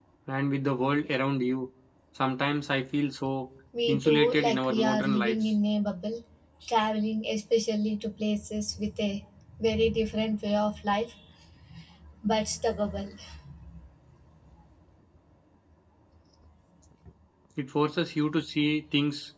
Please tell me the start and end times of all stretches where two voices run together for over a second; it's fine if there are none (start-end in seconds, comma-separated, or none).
3.9-5.3